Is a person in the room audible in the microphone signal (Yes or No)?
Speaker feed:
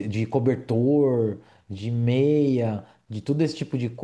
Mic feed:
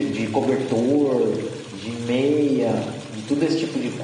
No